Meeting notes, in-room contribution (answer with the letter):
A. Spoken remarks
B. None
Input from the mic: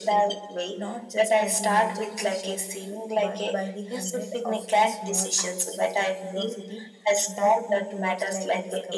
A